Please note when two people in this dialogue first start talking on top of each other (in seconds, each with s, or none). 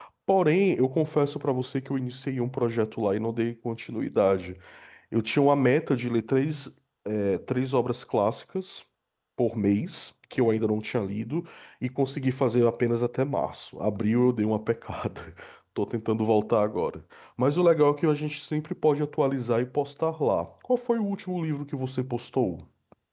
none